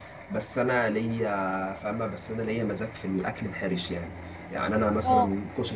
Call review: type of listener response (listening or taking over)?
listening